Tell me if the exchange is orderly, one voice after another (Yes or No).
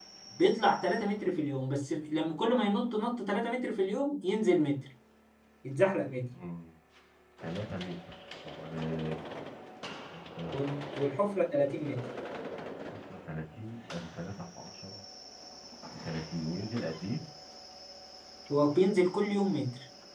Yes